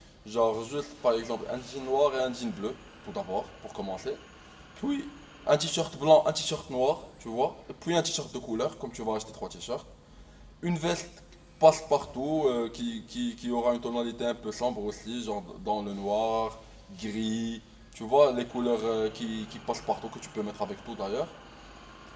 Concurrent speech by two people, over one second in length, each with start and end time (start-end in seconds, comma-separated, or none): none